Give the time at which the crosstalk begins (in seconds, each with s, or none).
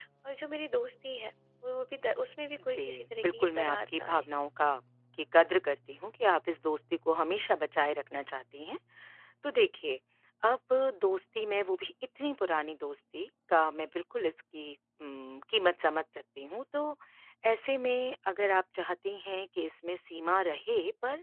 2.6 s